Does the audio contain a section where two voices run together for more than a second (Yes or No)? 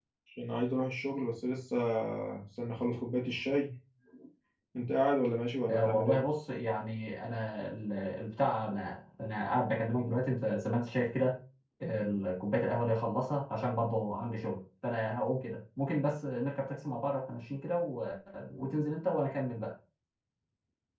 No